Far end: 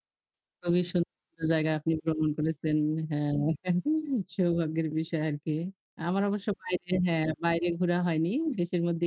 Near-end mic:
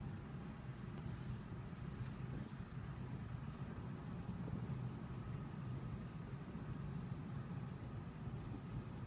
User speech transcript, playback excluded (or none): none